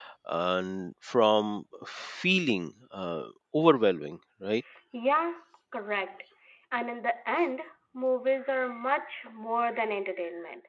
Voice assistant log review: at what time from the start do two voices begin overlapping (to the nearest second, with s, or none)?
none